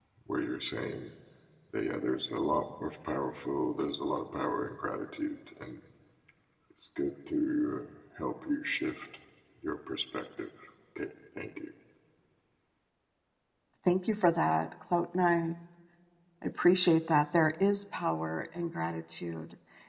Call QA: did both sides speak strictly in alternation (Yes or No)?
Yes